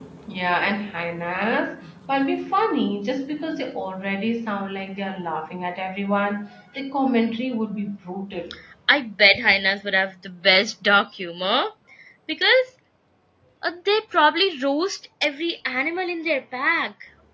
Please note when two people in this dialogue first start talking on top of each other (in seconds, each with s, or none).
none